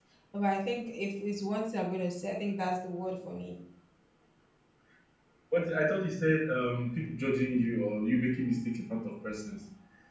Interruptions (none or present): none